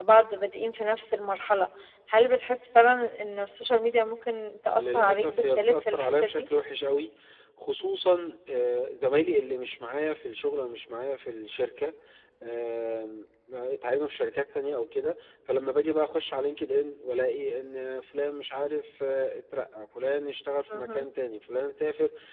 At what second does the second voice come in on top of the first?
4.7 s

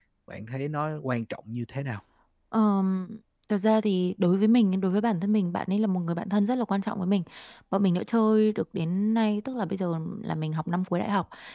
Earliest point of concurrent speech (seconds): none

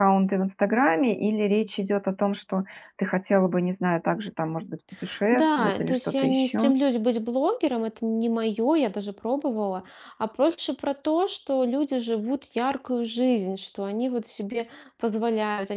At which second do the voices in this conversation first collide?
5.3 s

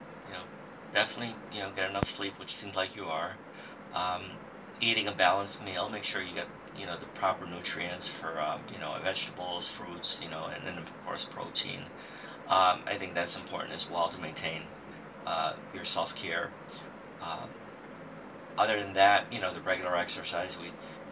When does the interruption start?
none

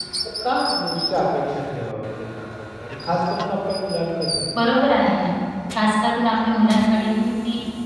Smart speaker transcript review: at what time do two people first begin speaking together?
none

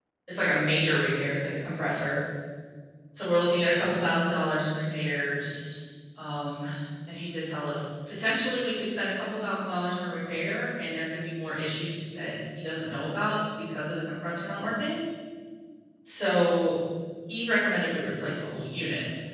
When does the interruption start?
none

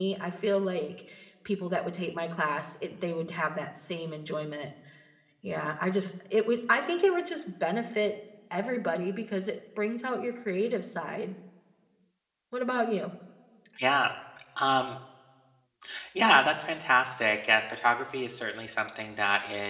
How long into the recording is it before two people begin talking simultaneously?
none

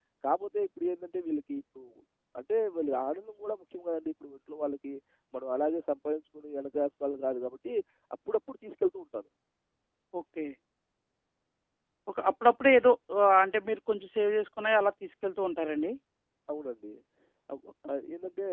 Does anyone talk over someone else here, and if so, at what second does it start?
none

